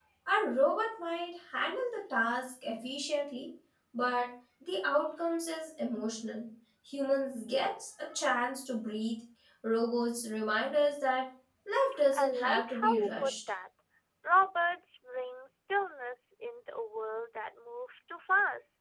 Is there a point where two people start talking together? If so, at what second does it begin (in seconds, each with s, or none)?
12.1 s